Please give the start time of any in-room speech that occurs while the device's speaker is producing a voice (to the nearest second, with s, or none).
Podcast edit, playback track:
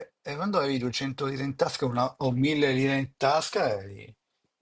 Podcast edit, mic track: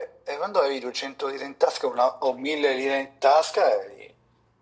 none